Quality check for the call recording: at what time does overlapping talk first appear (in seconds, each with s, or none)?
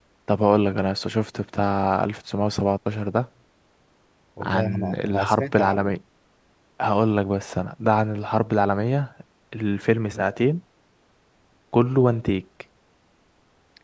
4.4 s